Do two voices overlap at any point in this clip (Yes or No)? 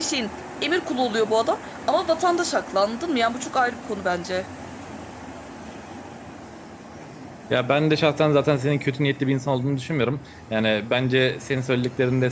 No